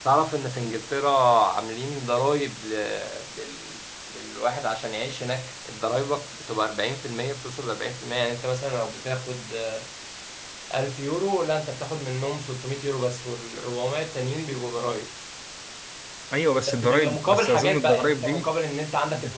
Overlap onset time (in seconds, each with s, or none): 16.7 s